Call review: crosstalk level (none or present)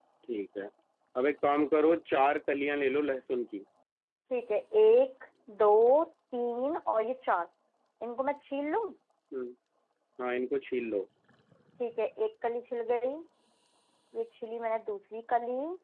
none